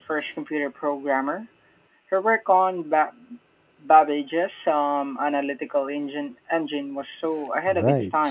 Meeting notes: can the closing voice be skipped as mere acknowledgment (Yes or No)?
No